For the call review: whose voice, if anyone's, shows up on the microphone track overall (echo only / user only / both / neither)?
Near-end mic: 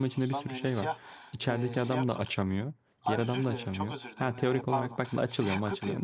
both